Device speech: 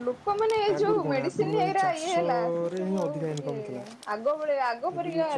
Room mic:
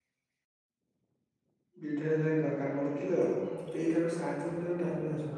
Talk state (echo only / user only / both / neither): user only